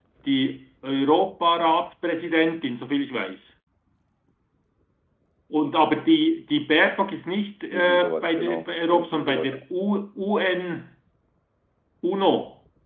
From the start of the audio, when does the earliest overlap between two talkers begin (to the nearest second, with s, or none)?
8 s